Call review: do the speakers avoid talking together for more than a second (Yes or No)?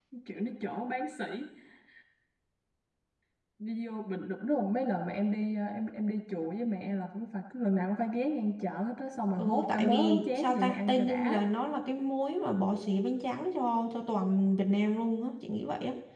No